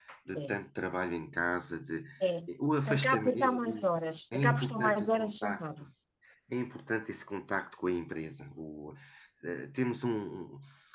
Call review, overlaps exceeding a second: present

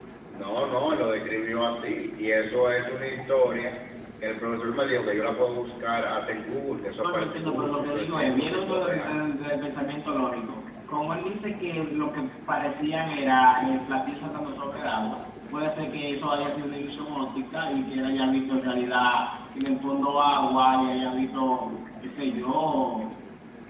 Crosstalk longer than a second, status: present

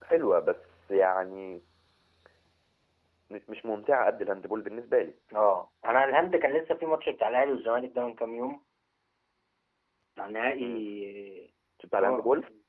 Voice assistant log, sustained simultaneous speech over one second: none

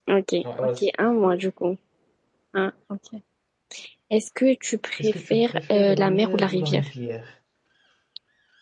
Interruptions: present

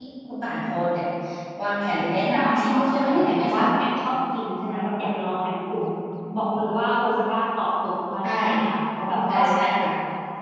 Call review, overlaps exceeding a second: present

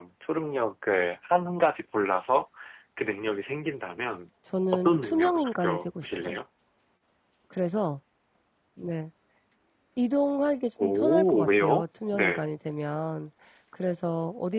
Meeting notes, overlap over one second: present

